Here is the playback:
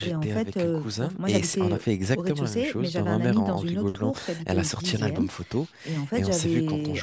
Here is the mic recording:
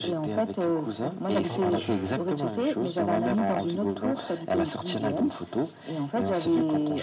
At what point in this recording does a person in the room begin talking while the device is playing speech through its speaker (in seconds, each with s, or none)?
1.5 s